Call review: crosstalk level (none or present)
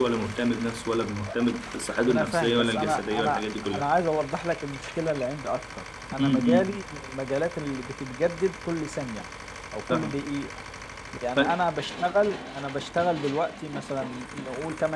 present